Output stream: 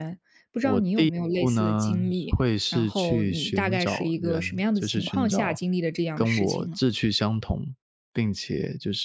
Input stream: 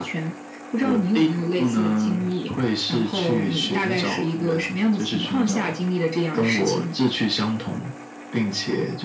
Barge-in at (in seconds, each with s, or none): none